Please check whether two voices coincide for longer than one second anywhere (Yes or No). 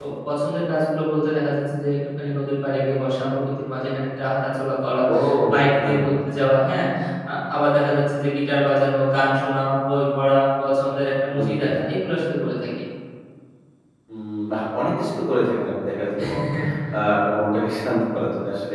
No